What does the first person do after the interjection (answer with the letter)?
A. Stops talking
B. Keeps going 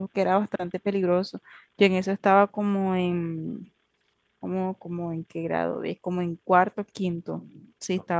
B